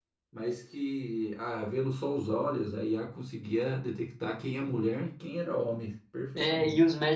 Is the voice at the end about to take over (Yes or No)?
Yes